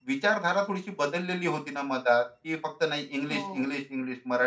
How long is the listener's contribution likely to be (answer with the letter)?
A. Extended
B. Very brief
B